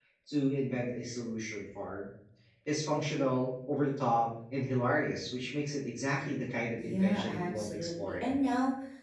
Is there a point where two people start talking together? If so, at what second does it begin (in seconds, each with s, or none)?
6.8 s